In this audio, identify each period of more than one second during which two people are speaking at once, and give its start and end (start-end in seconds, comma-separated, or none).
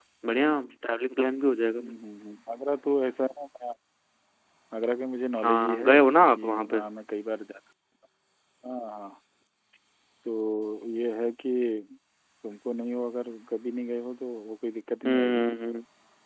5.5-6.8